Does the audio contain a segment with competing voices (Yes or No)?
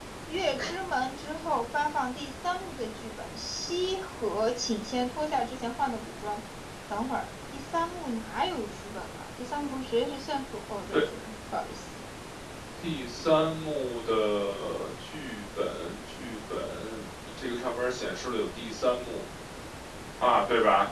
No